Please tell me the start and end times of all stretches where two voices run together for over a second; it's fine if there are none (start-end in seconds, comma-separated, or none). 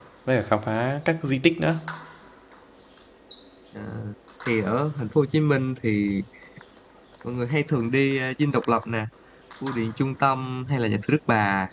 none